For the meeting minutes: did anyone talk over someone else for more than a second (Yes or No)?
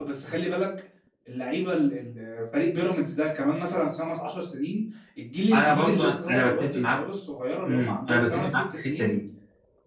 Yes